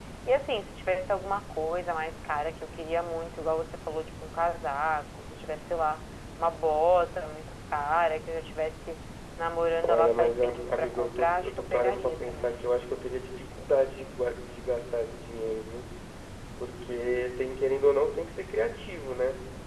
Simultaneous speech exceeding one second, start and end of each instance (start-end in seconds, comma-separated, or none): 9.9-12.5